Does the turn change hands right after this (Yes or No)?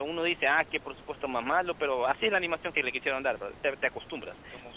No